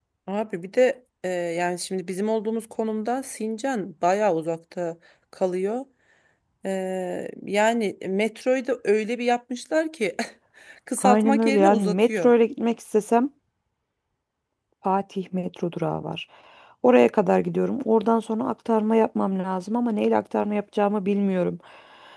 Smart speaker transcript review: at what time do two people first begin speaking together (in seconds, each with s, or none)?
11.0 s